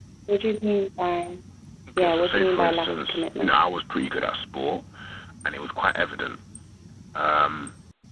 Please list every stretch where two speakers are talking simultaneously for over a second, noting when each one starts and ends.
2.0-3.5

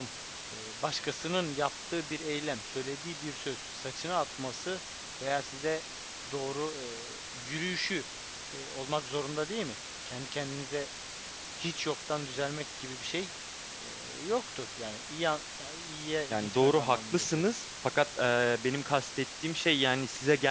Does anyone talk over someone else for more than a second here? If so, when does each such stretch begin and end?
16.3-17.5

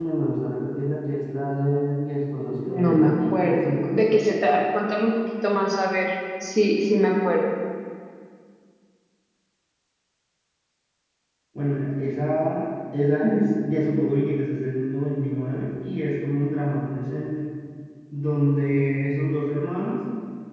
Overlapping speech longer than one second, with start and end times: 2.7-4.2

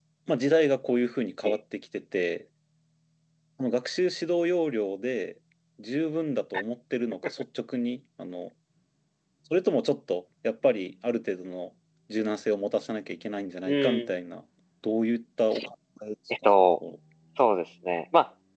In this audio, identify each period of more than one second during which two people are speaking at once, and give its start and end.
none

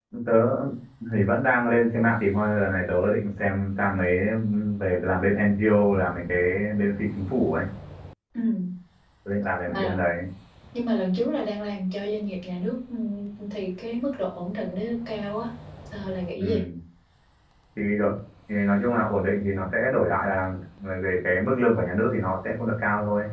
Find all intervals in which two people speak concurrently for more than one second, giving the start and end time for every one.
none

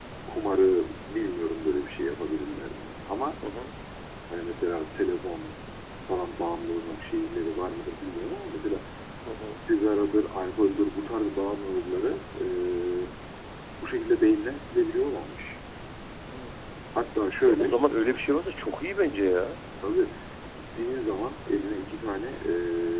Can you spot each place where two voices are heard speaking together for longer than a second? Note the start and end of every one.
none

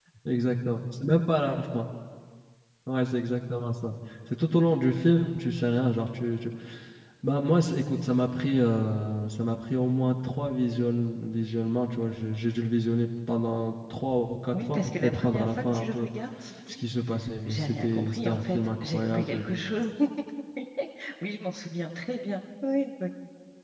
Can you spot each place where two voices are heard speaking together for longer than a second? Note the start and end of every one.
14.5-16.1, 17.4-19.5

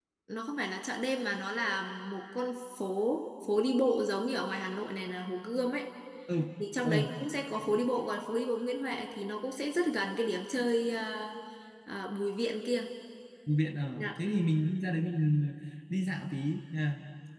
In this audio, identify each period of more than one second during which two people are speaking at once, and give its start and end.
none

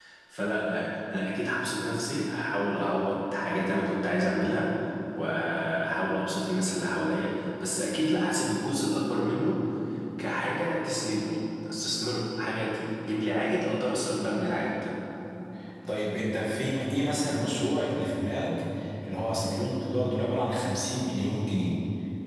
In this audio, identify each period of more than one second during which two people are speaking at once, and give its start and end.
none

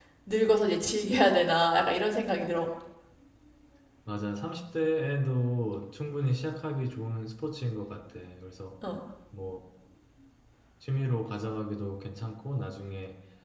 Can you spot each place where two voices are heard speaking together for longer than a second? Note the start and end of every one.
none

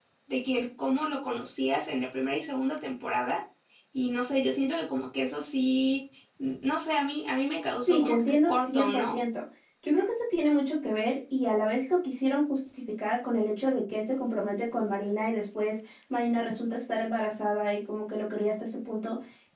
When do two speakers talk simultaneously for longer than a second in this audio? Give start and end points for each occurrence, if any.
7.9-9.2

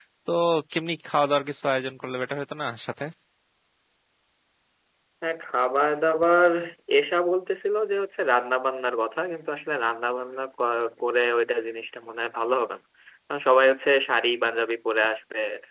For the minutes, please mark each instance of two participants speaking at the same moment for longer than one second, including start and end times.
none

